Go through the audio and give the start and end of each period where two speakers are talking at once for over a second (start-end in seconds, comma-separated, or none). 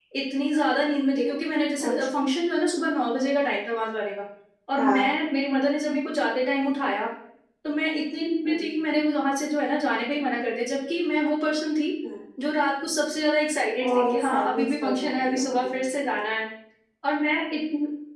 13.9-15.8